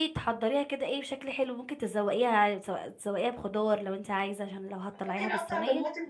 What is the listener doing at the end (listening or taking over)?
taking over